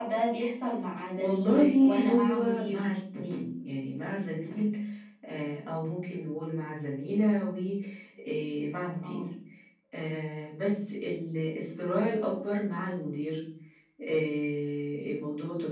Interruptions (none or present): present